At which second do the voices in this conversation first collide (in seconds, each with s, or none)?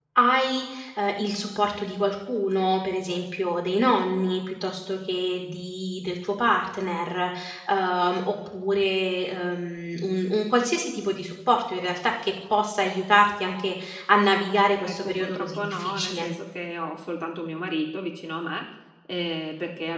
14.8 s